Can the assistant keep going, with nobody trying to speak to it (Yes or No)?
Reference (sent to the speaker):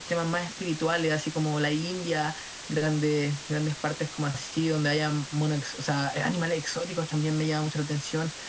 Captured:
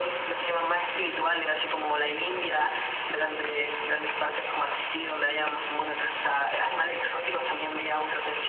Yes